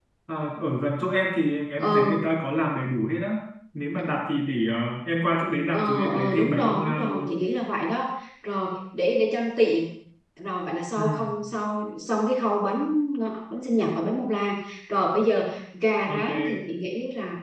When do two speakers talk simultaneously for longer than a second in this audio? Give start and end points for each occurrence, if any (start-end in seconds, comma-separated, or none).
5.7-7.3